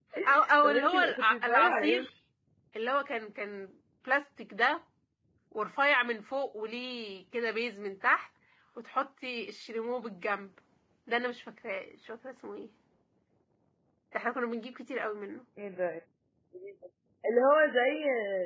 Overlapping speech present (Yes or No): Yes